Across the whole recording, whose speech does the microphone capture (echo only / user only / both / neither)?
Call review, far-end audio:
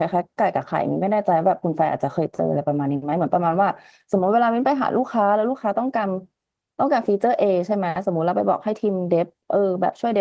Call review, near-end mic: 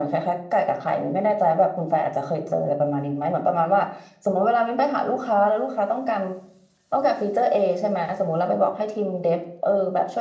echo only